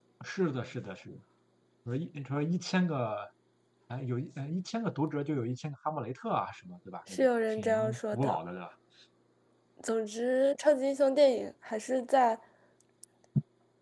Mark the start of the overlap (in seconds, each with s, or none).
7.1 s